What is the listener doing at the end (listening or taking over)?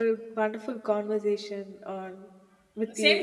taking over